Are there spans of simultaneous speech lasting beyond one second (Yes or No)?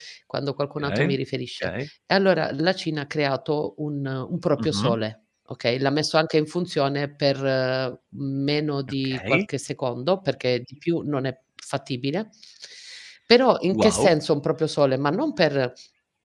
No